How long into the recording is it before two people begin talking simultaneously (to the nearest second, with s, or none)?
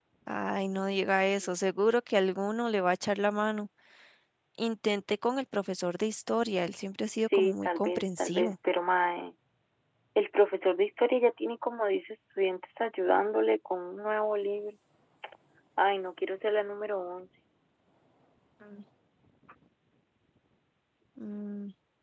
7 s